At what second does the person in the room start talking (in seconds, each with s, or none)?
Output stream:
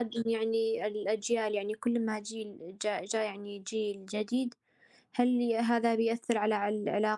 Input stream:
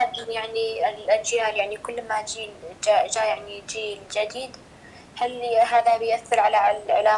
none